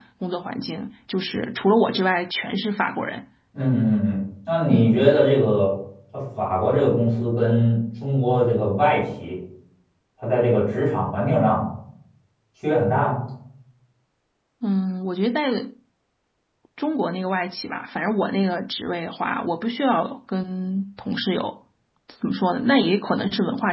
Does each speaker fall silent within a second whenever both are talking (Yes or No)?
Yes